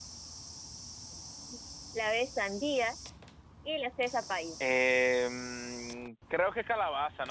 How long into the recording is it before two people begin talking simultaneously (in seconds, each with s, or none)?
none